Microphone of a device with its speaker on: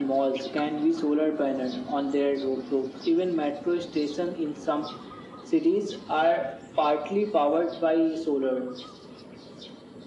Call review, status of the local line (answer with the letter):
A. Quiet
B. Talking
A